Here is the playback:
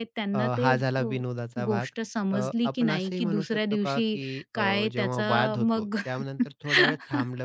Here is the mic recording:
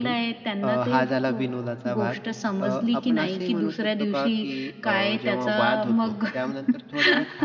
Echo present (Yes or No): Yes